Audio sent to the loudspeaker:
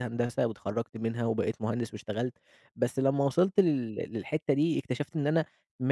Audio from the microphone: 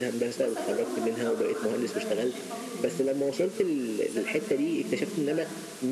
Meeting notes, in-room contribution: present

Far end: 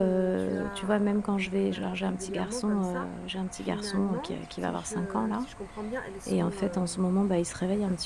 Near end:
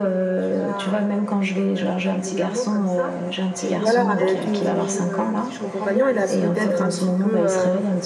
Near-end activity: present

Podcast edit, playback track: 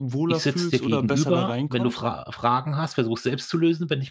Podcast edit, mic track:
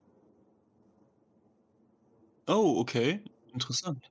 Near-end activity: present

